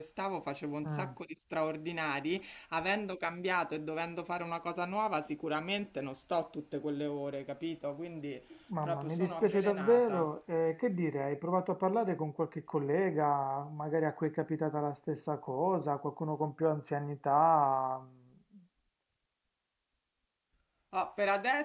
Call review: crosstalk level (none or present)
present